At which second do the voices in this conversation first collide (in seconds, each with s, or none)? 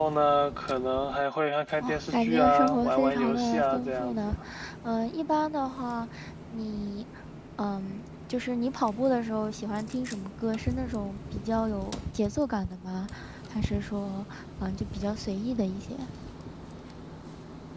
1.8 s